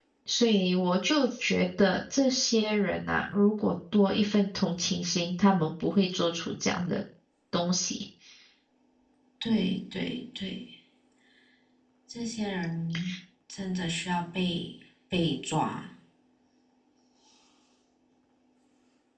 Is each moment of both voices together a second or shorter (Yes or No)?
Yes